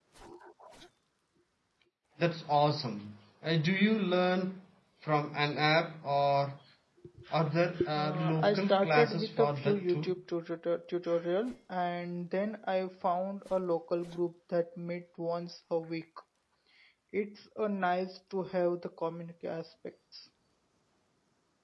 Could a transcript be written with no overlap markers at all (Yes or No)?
No